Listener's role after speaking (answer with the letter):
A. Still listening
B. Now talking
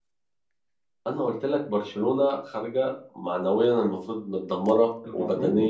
A